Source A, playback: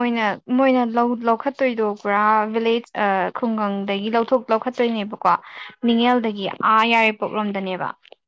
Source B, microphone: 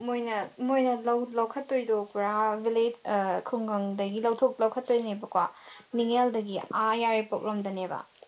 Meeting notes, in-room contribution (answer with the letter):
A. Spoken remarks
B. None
B